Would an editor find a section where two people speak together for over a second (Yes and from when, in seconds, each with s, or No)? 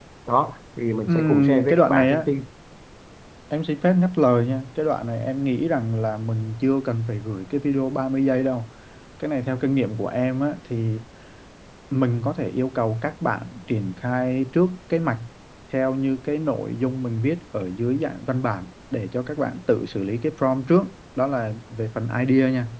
Yes, from 1.1 s